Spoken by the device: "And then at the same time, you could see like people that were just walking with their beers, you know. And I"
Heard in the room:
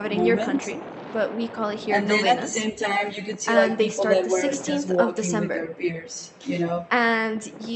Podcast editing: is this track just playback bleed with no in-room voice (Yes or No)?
No